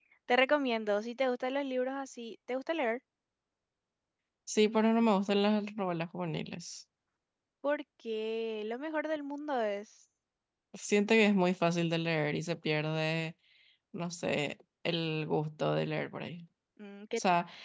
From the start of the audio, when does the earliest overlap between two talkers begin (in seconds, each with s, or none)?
none